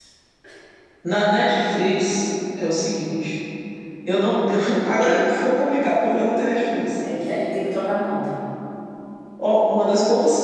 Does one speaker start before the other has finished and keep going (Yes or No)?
No